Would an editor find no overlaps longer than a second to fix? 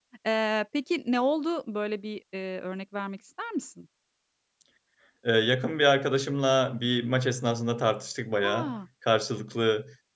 Yes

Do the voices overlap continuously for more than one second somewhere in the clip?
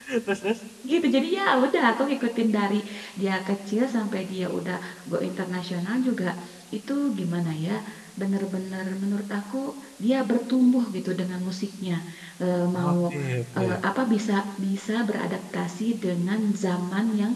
No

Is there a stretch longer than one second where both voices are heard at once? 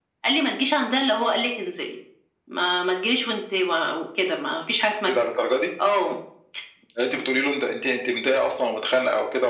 No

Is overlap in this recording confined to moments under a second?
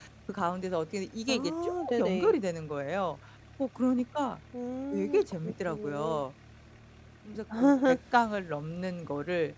No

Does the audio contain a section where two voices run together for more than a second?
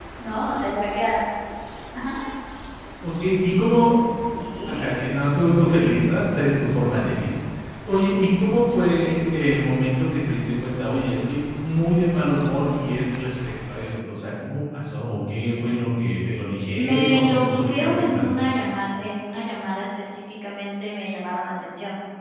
Yes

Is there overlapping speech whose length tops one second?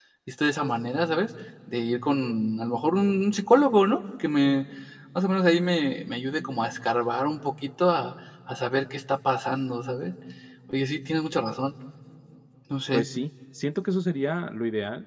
No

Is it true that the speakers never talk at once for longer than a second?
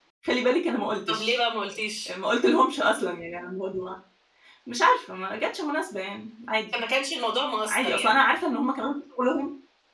Yes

